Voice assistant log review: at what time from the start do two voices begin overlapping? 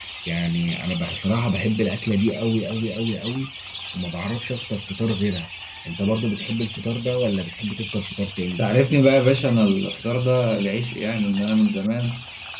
none

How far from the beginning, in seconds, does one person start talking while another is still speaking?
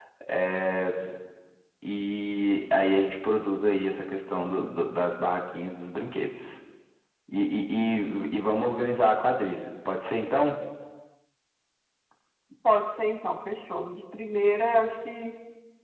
none

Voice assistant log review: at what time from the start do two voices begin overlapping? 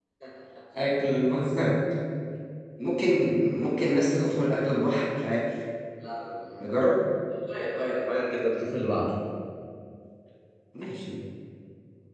none

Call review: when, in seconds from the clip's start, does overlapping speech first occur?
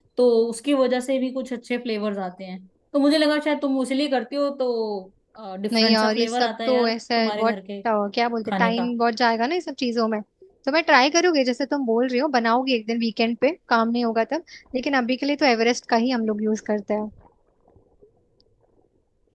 6 s

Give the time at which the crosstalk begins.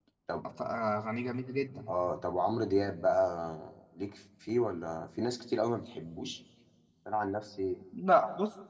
none

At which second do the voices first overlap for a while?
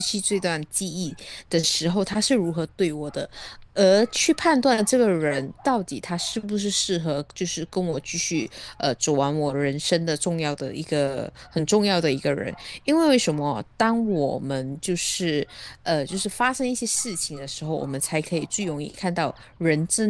none

